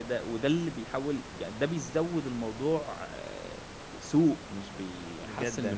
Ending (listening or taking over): taking over